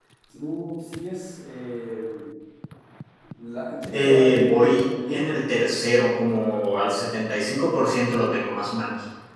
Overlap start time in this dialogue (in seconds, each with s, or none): 3.9 s